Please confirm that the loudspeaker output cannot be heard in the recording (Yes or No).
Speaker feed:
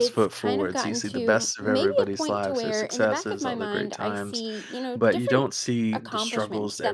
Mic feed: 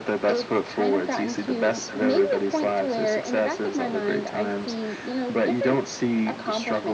No